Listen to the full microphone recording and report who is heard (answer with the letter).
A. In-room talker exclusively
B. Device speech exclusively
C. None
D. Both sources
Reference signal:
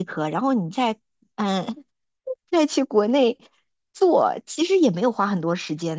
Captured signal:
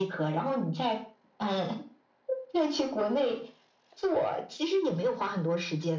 B